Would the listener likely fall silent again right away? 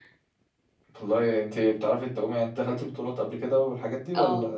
No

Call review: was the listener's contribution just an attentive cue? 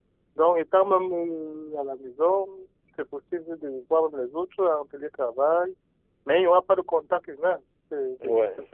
No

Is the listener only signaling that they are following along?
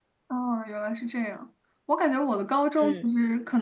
Yes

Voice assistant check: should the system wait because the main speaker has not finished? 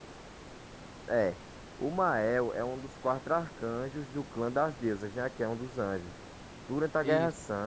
Yes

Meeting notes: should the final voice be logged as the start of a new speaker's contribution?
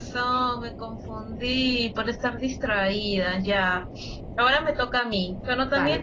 No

